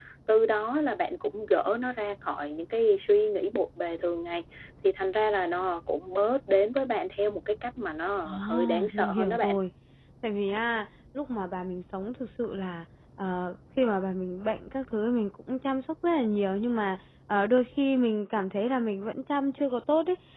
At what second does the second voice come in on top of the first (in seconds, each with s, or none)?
8.2 s